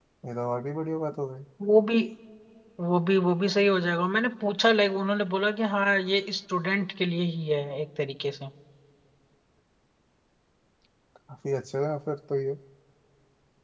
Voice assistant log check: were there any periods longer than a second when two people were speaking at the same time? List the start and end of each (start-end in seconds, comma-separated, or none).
none